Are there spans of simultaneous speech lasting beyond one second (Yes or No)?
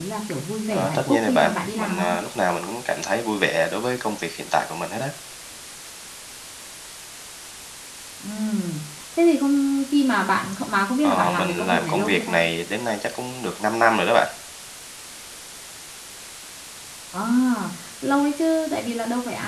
Yes